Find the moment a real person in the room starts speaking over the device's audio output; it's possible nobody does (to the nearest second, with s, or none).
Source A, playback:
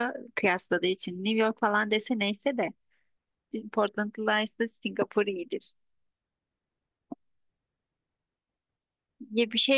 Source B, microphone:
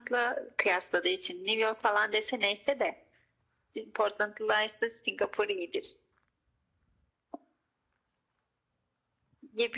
none